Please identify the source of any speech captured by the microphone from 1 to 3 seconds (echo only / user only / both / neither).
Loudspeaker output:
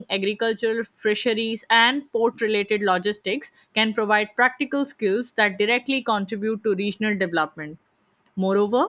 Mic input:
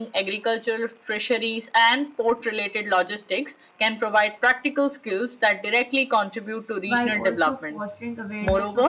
echo only